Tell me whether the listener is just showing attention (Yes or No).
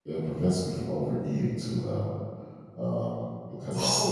No